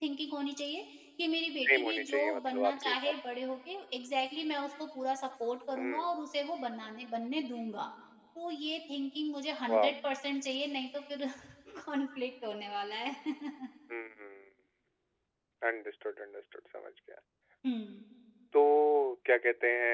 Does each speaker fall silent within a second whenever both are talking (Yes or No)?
No